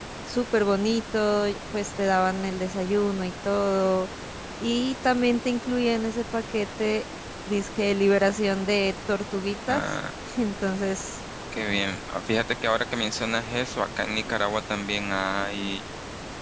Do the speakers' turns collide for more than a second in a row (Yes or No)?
No